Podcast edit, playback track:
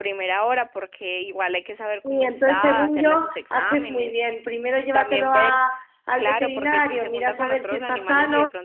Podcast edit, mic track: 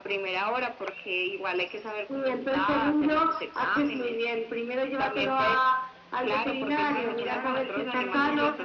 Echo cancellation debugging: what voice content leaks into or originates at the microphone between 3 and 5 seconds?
echo only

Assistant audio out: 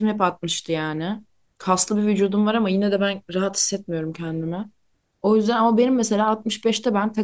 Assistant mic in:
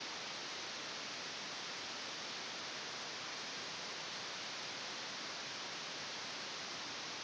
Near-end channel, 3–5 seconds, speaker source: neither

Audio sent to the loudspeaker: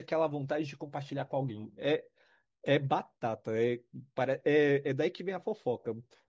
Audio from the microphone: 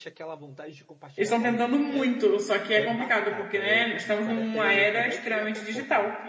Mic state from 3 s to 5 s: both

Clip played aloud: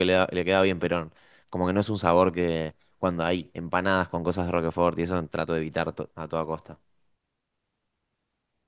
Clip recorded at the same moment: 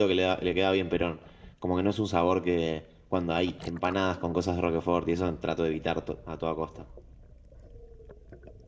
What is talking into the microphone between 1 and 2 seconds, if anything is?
echo only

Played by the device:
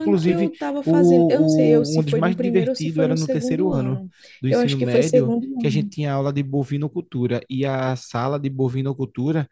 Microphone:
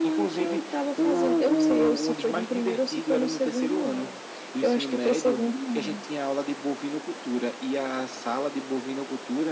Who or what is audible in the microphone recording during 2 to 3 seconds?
echo only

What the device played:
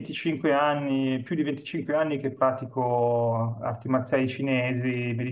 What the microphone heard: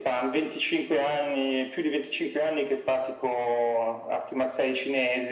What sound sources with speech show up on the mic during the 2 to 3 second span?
echo only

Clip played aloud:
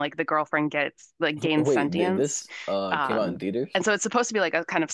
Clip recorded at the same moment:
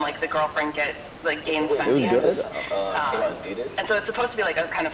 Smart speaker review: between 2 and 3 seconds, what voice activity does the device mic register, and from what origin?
both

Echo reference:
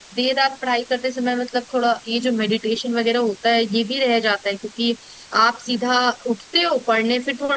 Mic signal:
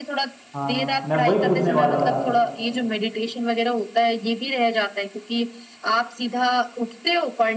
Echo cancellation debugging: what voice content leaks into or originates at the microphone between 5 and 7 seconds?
echo only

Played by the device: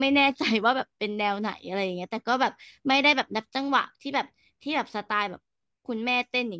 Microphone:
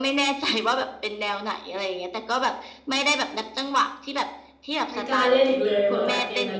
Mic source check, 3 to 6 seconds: both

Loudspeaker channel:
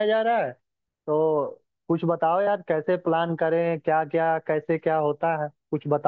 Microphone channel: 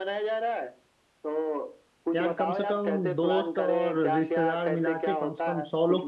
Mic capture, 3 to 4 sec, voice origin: both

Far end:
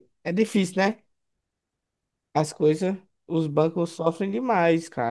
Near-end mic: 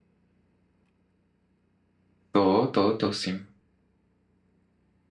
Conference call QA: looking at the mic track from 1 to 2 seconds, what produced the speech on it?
neither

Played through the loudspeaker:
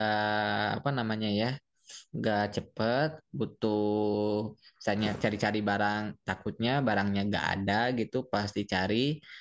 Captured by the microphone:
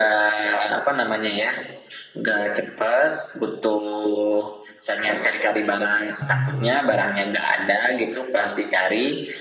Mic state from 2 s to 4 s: echo only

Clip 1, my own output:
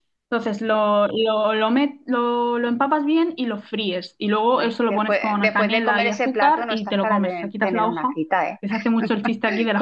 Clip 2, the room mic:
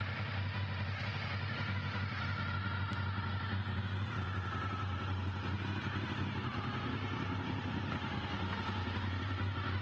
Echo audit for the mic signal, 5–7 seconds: neither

